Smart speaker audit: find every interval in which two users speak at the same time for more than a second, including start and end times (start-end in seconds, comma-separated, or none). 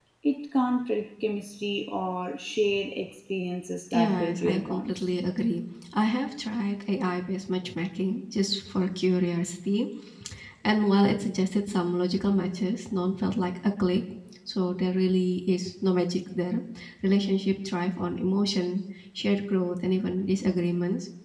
3.9-5.1